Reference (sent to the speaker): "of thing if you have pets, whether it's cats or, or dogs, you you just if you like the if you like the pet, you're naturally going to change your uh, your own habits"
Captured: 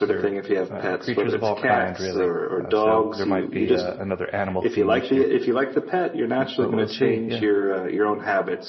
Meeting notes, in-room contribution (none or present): present